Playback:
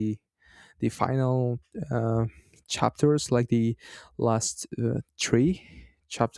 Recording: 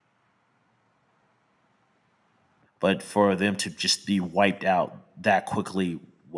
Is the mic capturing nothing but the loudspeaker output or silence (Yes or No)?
No